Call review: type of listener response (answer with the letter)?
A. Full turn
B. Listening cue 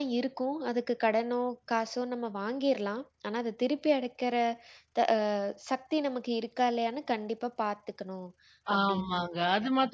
A